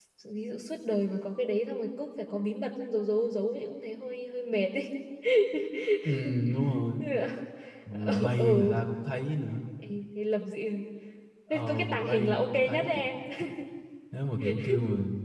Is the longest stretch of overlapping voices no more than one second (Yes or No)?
No